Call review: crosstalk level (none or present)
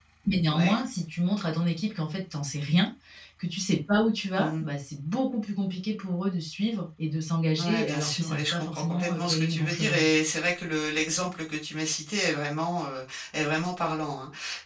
present